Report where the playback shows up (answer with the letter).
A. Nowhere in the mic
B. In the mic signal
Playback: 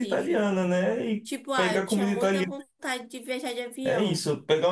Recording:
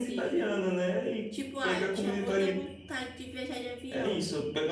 B